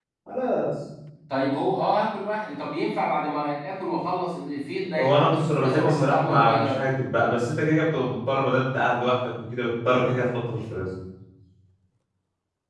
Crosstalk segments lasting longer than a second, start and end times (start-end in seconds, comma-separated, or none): 4.9-6.9